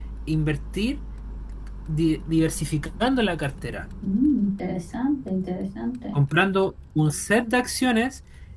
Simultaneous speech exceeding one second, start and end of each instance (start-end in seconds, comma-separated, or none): none